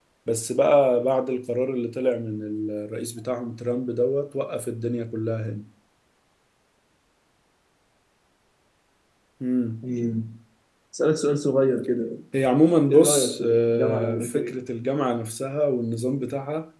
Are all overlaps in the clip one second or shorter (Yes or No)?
No